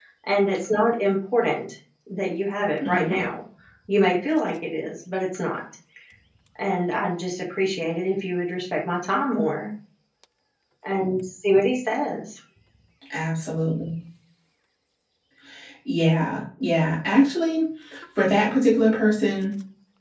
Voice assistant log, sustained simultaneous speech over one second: none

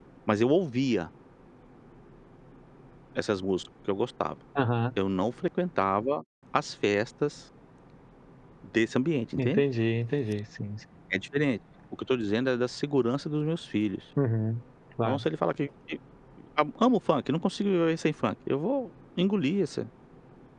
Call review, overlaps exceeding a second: none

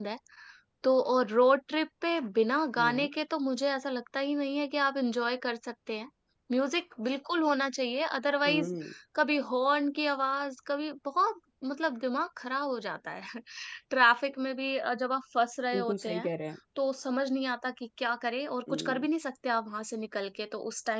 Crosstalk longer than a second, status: none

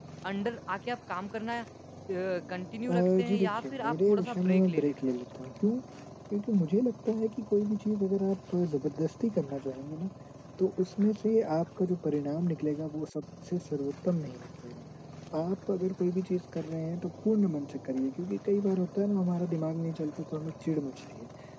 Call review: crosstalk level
present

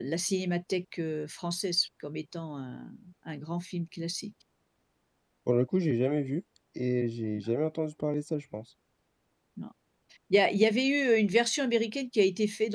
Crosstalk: none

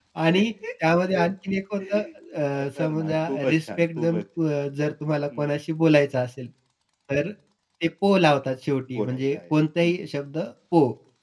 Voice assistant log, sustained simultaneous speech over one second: present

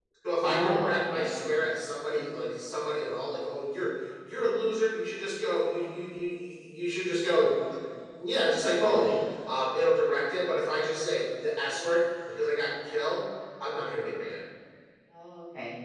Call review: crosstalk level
present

